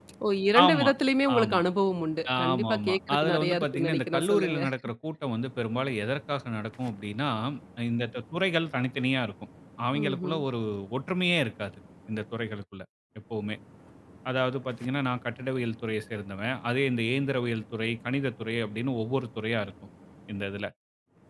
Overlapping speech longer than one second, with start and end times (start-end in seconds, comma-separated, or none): 2.5-4.6